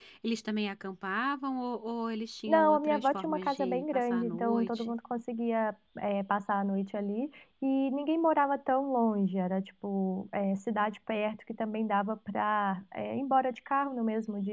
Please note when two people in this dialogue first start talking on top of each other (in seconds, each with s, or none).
2.5 s